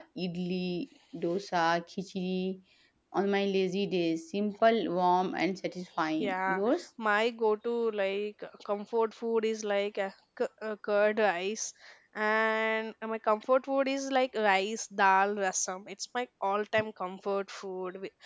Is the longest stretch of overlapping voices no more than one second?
Yes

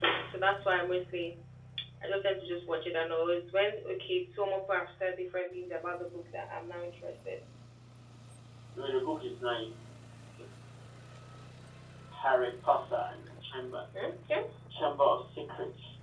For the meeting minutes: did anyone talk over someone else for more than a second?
No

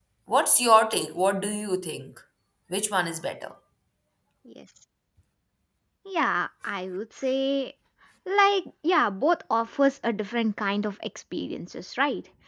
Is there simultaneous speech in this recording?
No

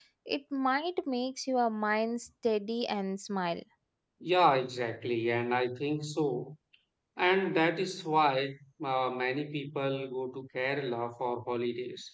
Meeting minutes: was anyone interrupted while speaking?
No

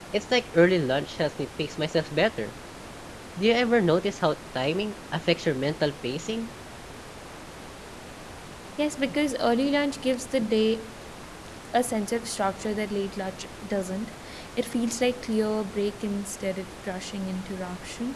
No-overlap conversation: Yes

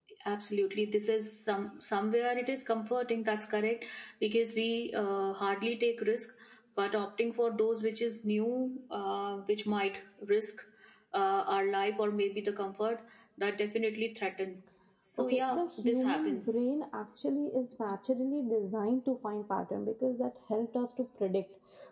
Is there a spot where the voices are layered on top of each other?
Yes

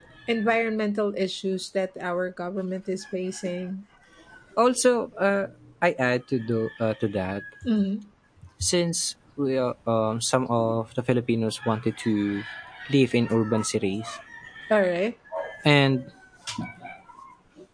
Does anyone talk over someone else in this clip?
No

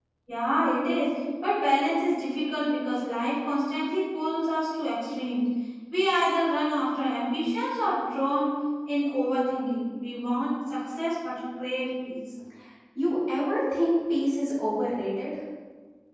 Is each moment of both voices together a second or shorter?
Yes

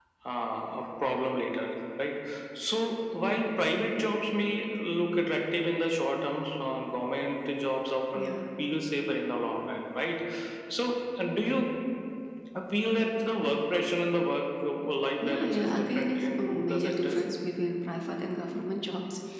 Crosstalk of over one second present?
Yes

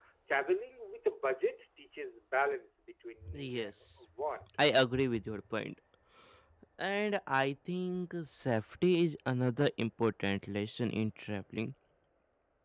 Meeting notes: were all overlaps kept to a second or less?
Yes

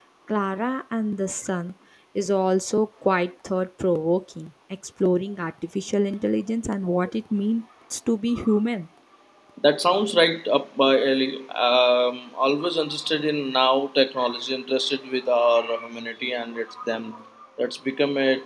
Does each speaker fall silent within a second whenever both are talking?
Yes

